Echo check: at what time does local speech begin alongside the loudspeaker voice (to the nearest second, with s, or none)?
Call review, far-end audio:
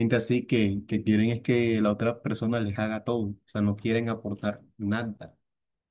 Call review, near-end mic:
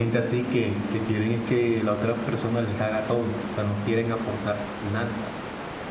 none